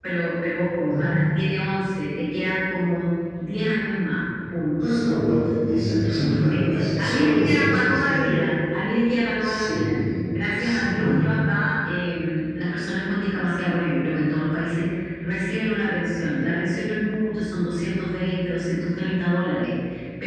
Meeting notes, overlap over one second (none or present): present